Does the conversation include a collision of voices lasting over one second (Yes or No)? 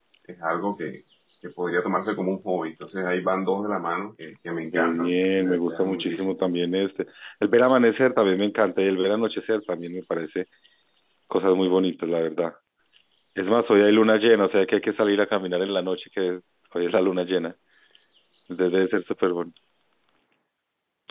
Yes